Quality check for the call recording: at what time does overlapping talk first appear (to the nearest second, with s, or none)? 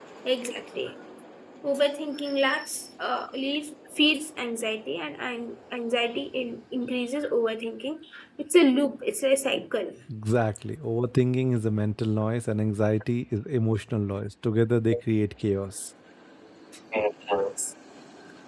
none